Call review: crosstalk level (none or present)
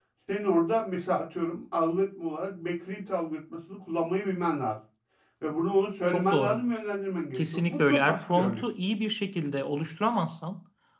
present